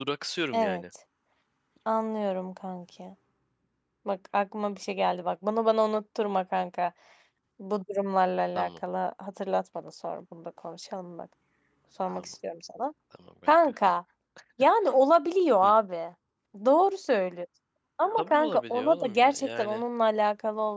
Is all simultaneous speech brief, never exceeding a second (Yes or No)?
No